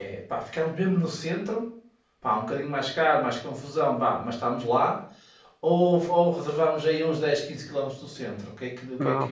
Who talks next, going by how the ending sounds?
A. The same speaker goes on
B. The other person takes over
B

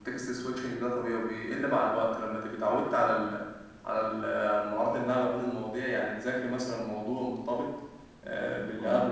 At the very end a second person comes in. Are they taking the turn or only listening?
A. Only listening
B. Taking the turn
A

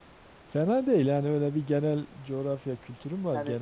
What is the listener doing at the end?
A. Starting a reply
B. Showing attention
A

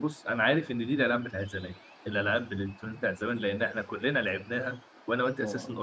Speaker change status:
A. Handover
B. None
B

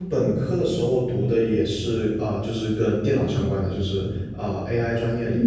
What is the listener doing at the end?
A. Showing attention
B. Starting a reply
B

